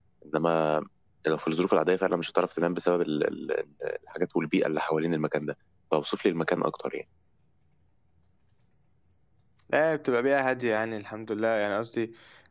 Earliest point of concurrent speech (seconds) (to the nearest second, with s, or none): none